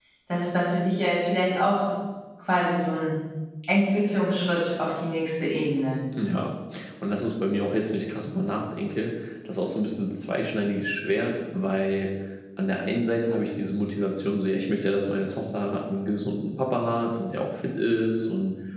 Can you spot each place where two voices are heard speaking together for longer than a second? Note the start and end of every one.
none

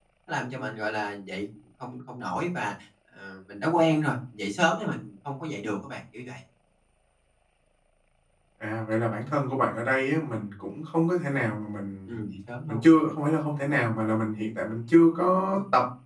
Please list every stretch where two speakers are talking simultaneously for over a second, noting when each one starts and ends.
none

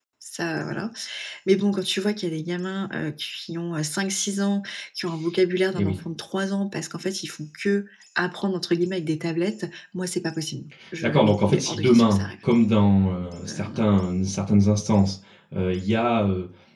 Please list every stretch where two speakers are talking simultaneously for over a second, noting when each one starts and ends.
11.0-12.2

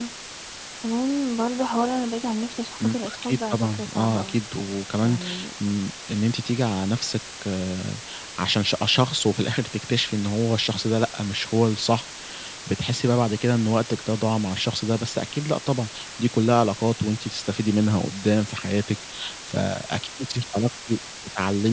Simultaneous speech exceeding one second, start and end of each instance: 2.8-4.4

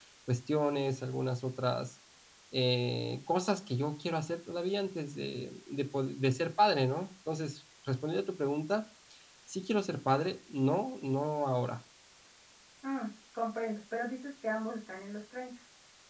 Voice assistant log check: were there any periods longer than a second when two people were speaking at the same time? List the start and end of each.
none

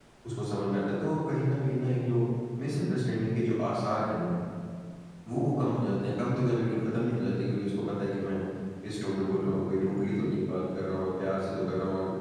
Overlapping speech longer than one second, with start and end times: none

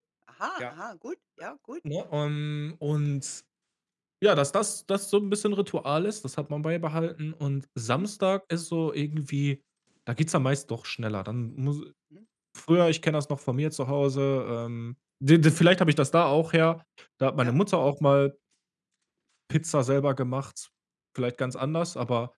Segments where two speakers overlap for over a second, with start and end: none

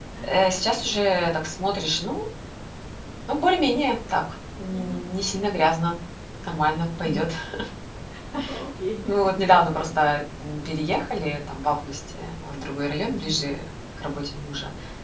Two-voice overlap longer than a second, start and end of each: none

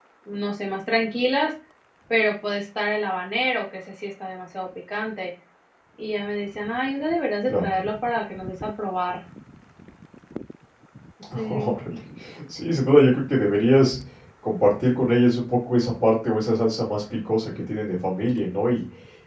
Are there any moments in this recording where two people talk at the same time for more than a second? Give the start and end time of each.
none

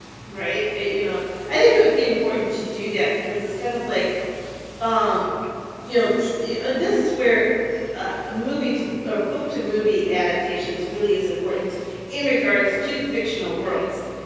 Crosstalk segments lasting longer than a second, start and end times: none

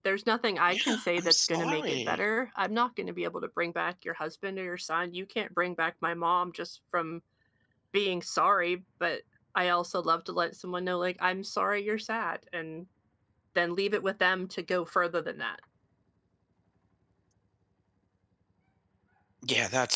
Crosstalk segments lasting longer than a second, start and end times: 0.7-2.2

